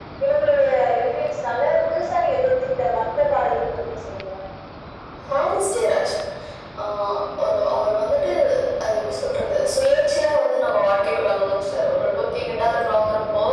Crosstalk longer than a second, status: none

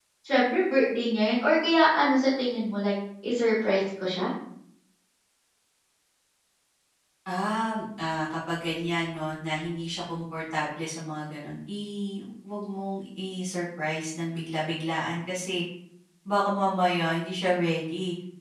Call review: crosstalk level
none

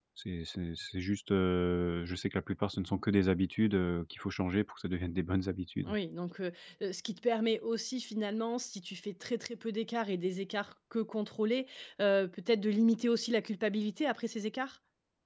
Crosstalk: none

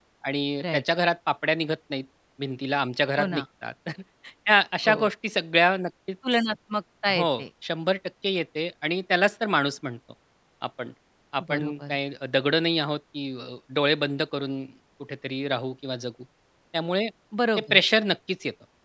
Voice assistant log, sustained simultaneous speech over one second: none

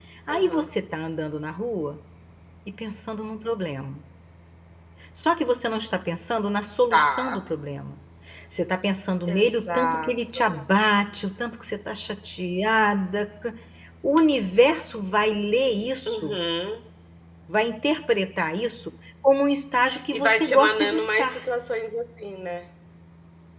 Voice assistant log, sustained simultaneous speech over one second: present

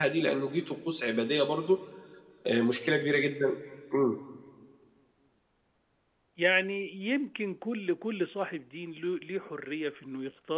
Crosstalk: none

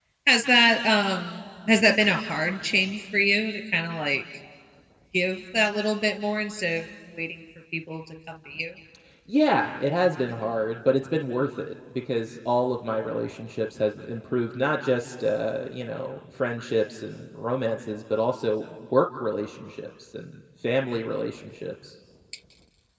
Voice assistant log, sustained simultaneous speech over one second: none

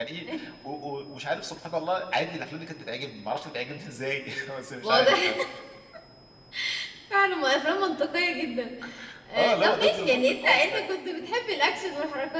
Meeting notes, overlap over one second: present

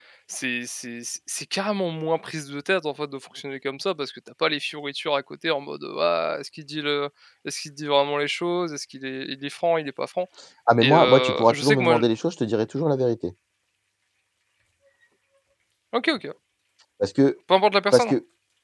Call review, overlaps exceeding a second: present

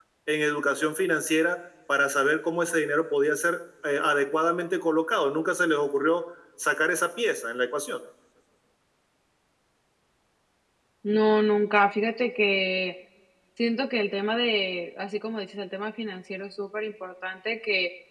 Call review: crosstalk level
none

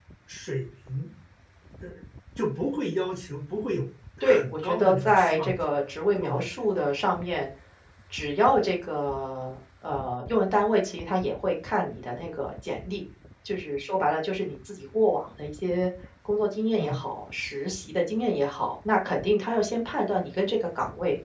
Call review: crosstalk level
present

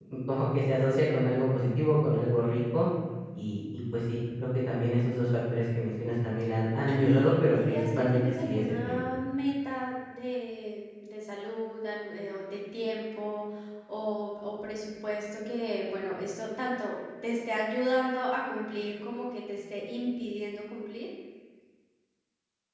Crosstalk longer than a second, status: present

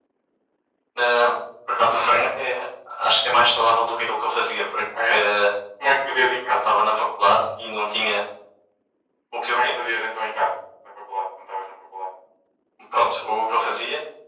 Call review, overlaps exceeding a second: none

